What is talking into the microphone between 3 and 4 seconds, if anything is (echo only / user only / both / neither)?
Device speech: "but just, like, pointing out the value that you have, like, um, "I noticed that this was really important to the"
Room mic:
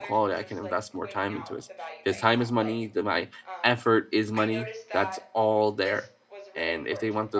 both